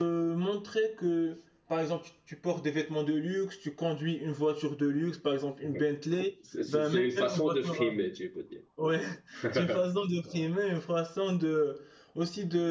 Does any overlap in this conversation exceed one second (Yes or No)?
Yes